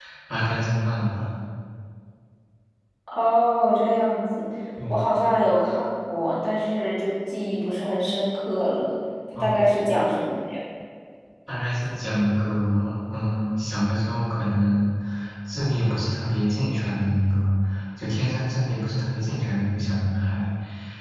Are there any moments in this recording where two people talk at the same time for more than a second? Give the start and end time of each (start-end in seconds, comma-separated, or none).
none